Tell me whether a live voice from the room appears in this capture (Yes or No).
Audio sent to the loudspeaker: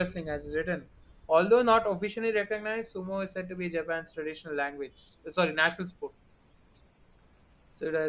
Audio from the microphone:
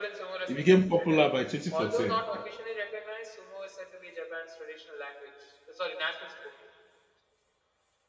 Yes